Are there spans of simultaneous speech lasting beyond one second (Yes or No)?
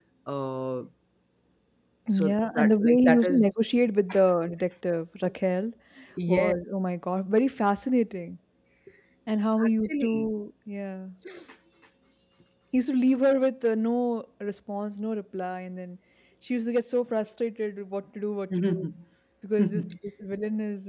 Yes